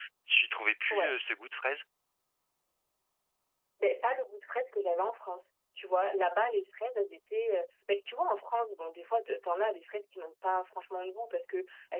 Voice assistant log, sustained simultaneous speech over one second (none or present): none